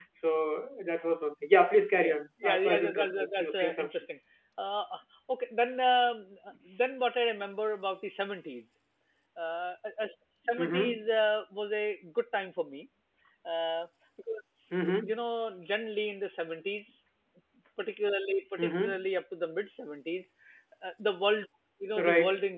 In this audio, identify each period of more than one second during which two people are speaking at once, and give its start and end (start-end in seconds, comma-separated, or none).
2.0-3.9